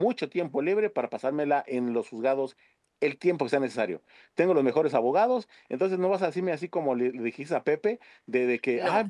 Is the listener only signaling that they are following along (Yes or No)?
Yes